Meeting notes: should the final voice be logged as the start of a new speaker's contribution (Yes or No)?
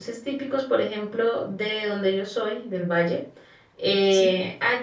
No